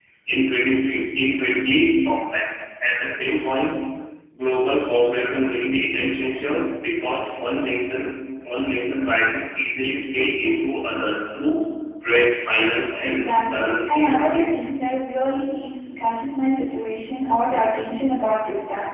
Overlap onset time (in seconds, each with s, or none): 13.0 s